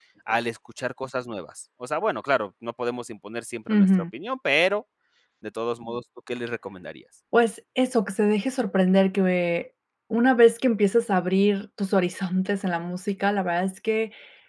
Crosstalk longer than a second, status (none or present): none